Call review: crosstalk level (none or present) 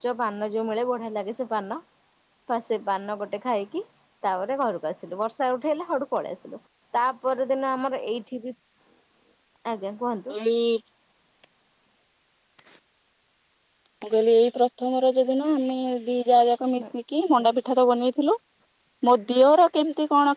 none